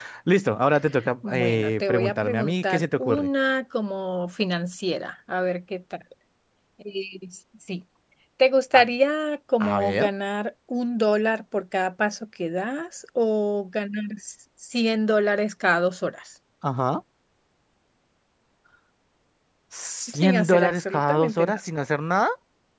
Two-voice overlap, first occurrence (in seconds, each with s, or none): 1.2 s